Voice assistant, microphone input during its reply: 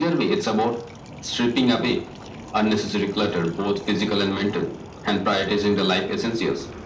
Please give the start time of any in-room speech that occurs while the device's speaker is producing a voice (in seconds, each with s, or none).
none